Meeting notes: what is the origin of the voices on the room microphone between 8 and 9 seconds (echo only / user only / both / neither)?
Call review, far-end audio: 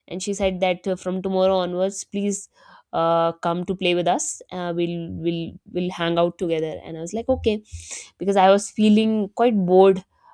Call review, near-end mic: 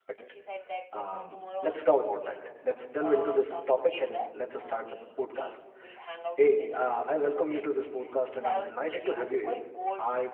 both